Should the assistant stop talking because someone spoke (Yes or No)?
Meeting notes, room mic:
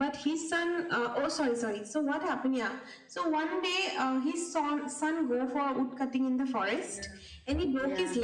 Yes